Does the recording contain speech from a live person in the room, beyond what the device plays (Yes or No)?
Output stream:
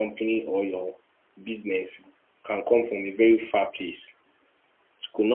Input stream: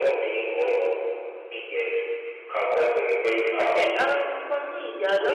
Yes